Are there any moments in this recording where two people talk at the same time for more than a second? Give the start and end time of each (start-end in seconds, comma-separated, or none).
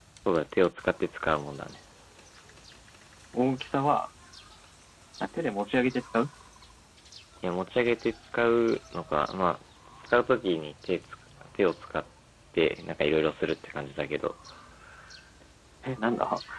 none